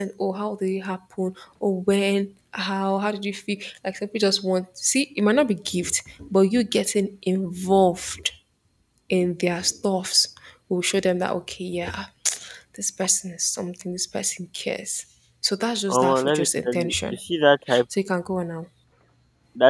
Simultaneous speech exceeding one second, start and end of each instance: 15.9-17.2

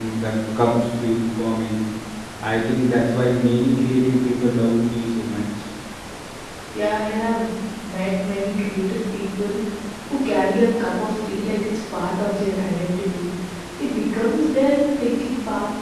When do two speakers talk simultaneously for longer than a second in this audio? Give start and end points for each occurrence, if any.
none

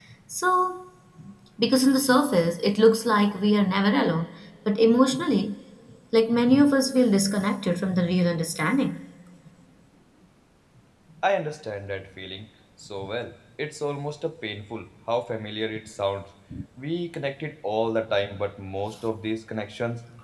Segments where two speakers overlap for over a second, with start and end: none

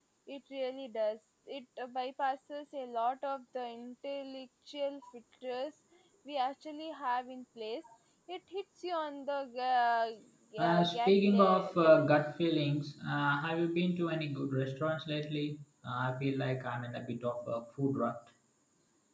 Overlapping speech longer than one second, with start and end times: 10.6-12.1

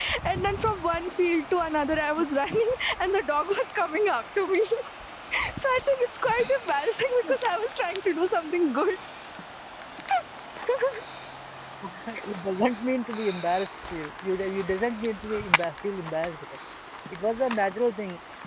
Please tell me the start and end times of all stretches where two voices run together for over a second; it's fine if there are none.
none

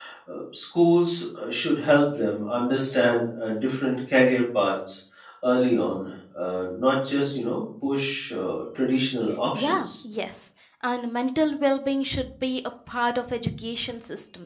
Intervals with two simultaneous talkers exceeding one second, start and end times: none

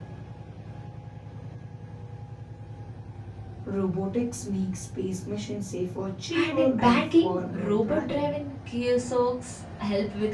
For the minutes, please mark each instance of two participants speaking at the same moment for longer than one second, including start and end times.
6.3-8.3

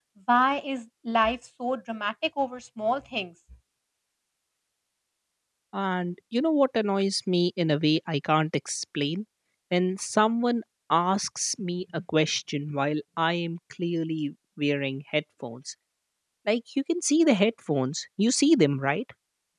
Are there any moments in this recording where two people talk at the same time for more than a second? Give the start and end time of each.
none

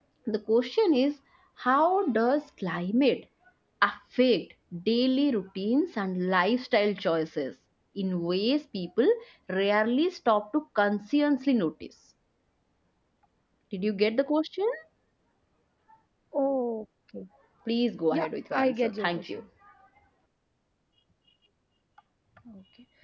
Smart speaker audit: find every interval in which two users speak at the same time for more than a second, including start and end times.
18.1-19.4

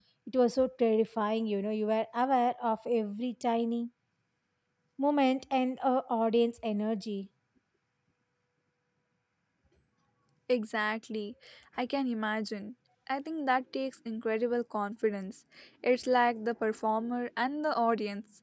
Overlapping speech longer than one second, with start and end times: none

